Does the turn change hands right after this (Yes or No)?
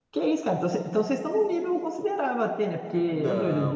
Yes